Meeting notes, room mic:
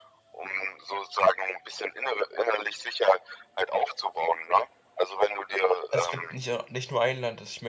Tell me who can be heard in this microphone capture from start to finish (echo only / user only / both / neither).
both